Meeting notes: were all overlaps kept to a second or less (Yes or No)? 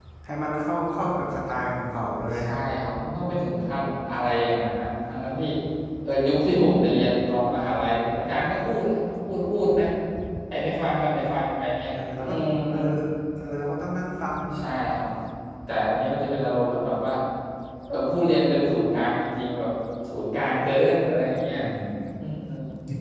Yes